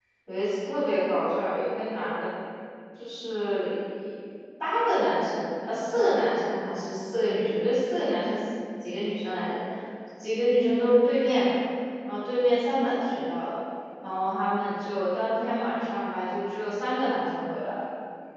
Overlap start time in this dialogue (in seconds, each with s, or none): none